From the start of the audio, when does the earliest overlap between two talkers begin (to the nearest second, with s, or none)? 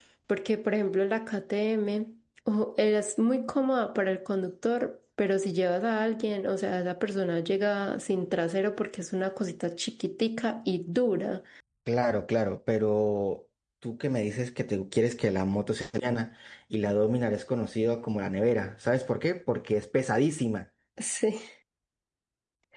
none